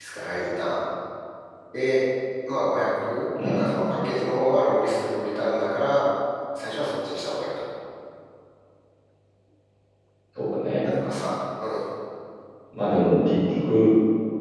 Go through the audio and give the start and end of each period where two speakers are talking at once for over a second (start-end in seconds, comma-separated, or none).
none